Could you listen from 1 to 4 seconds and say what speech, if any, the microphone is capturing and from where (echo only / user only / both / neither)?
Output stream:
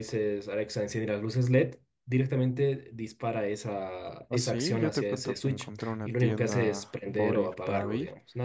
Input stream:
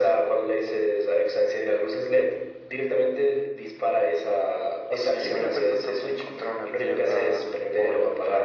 echo only